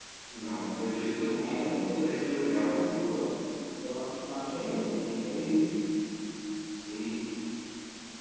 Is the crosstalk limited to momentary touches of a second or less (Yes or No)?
No